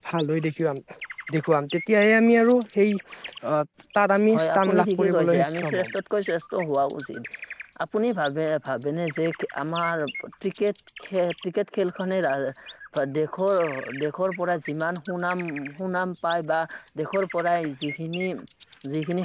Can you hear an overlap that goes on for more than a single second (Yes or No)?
Yes